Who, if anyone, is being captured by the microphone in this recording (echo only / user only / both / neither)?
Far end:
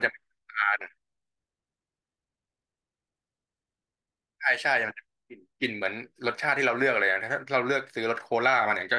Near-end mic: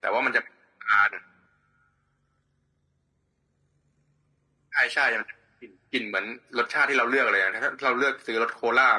echo only